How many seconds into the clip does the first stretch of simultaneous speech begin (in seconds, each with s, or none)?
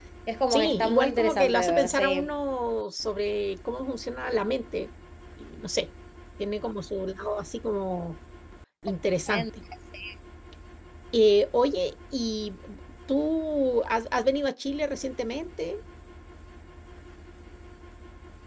0.5 s